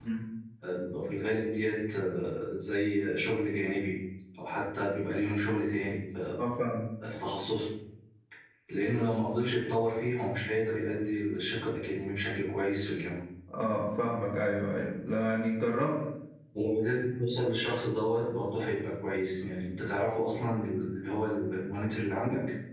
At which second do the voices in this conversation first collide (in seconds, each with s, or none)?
none